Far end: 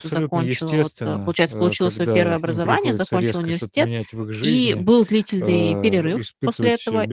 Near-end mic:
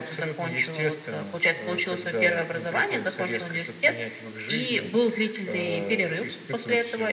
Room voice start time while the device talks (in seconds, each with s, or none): none